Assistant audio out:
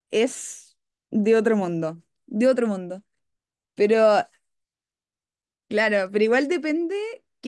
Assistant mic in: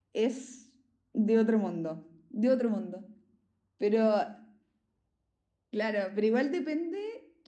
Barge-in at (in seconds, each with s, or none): none